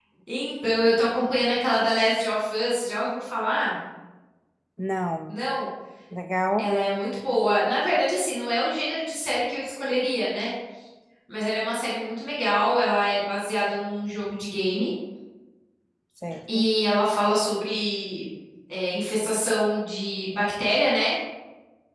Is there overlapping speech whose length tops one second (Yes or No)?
No